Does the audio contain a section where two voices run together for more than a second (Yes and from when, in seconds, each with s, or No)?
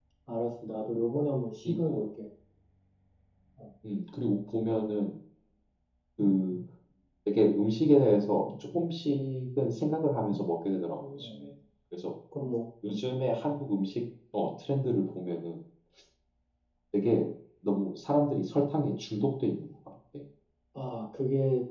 No